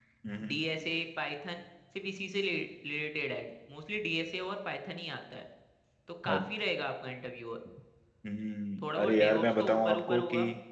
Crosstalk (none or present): present